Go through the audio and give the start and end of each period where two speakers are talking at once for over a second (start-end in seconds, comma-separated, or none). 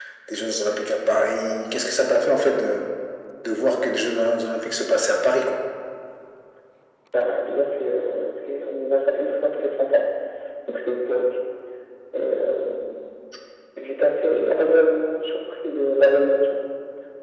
none